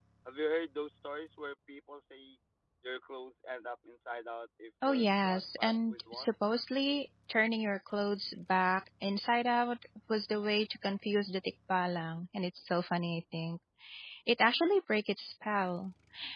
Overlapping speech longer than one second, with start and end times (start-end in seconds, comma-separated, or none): 4.8-6.3